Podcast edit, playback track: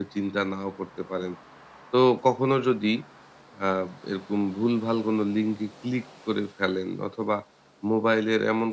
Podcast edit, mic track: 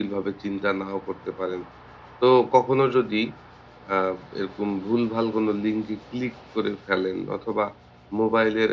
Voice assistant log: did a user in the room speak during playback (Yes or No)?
No